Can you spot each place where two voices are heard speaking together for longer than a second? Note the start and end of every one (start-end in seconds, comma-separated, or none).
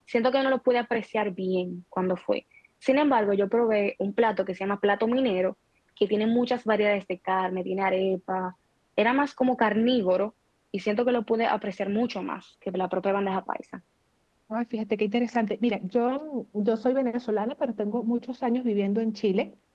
none